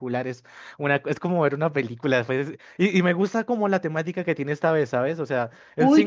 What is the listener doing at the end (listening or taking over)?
taking over